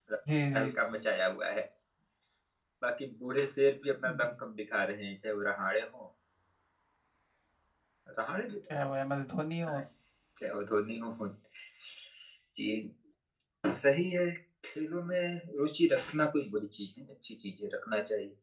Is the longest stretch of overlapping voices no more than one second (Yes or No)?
Yes